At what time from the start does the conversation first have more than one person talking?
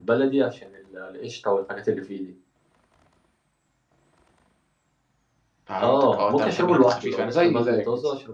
5.8 s

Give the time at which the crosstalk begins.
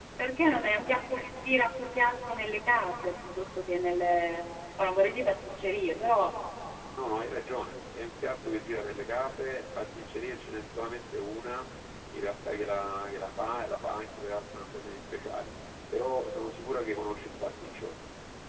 none

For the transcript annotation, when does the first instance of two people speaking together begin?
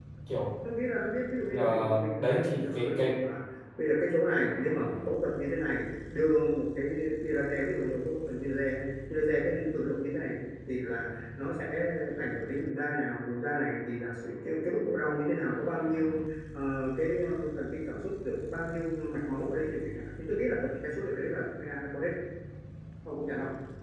1.5 s

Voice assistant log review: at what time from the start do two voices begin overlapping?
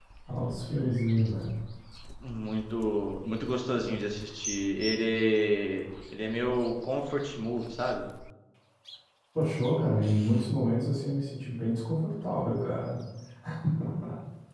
none

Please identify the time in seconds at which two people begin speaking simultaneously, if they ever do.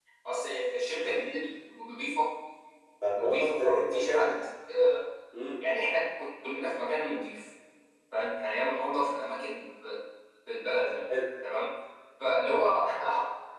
3.1 s

